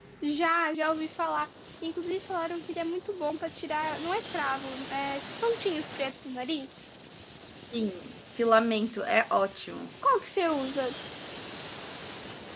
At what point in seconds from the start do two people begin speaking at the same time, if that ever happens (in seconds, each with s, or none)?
none